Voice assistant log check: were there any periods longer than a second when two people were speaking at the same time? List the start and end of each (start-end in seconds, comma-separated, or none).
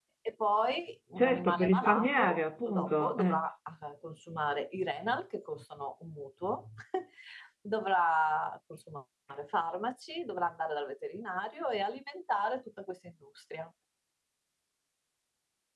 1.2-3.4